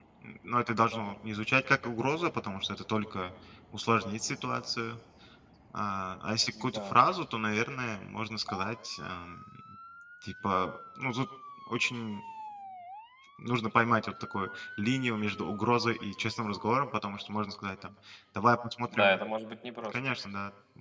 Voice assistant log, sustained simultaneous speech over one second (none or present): none